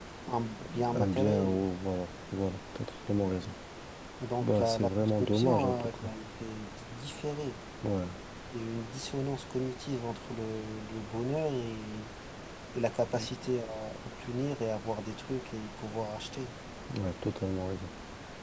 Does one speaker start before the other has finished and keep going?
Yes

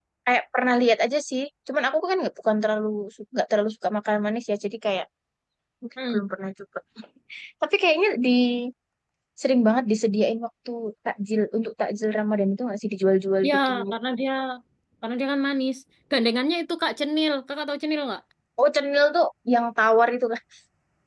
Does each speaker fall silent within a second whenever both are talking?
Yes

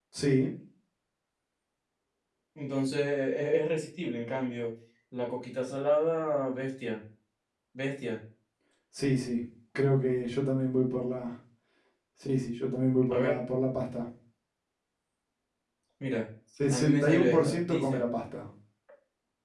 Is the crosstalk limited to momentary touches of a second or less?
No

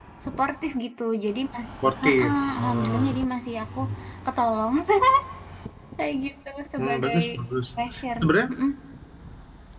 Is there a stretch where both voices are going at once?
Yes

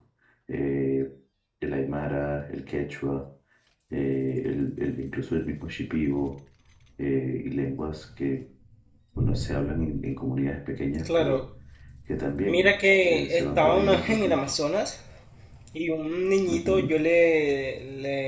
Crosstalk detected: Yes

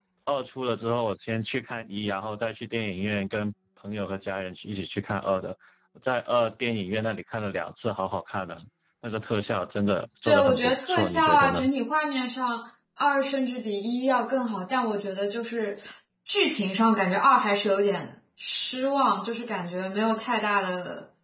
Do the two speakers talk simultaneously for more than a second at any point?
Yes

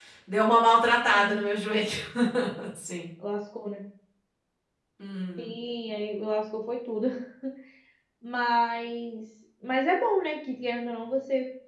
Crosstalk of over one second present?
No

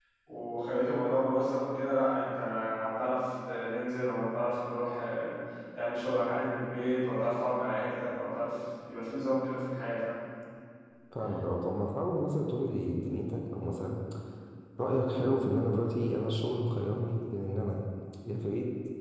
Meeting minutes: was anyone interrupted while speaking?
No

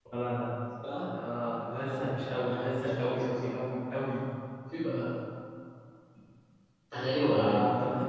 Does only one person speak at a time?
No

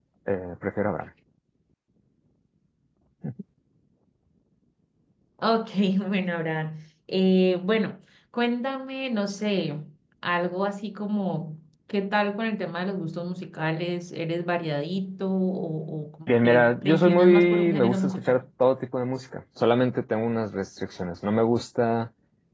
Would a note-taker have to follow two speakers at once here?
Yes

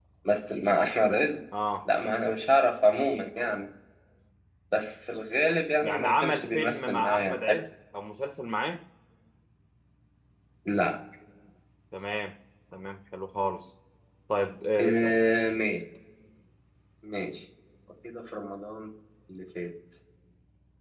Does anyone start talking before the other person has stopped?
Yes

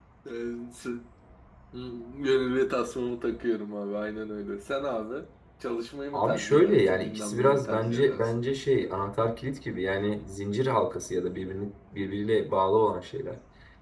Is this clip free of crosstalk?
No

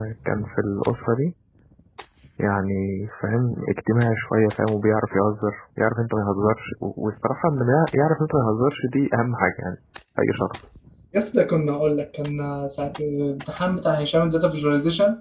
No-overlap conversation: Yes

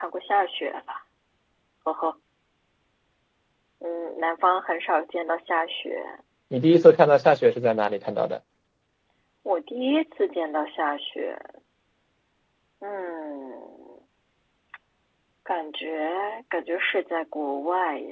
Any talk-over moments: No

